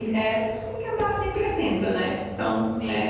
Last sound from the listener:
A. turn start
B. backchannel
A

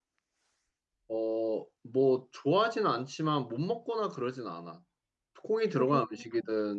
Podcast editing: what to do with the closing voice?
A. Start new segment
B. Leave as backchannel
B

